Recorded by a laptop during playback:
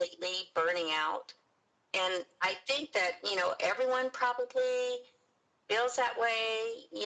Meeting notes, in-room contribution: none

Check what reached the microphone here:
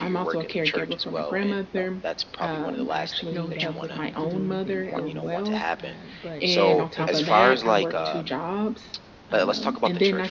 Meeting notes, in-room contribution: present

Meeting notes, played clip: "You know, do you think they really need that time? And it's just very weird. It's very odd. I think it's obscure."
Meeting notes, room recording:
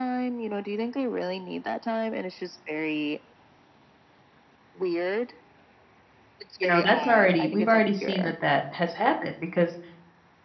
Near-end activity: present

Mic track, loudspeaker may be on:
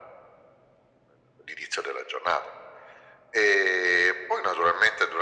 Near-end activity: none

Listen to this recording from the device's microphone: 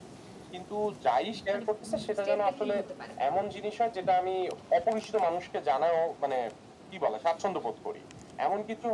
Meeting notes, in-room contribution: present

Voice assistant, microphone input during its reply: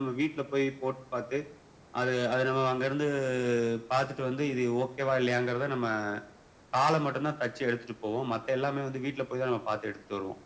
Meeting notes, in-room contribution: none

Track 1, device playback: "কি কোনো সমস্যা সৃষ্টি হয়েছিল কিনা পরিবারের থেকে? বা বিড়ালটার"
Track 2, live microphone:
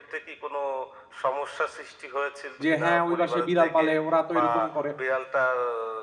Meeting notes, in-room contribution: present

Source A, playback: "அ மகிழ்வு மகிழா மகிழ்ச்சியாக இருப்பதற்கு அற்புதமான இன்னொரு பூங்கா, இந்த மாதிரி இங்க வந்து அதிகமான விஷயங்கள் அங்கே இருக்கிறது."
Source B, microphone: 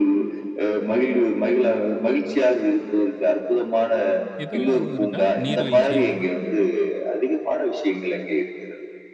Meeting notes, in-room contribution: present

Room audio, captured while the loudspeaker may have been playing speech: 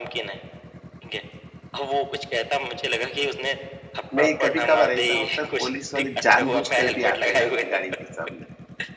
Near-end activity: present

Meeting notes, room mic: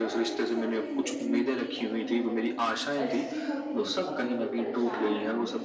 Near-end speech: present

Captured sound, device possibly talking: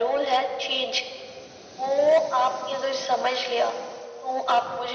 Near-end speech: none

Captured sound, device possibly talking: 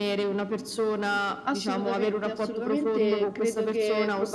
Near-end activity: present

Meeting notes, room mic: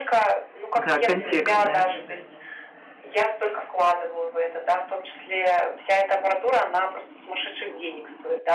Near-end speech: present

